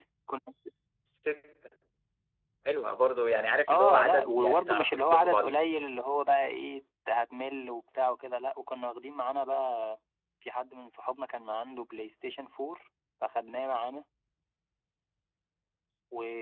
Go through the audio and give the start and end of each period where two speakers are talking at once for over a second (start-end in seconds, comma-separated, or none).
3.7-5.4